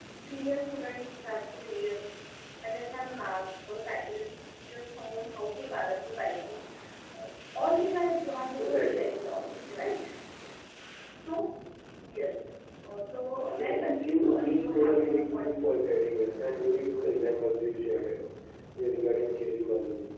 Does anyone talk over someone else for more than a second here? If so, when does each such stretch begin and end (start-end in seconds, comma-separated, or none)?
13.4-15.8